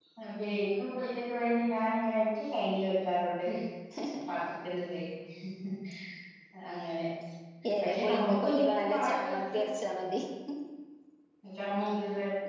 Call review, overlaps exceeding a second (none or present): present